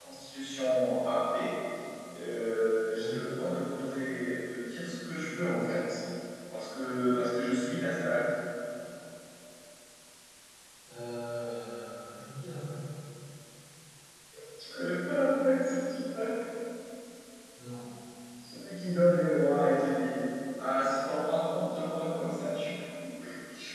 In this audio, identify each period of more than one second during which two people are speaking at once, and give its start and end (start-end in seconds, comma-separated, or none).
none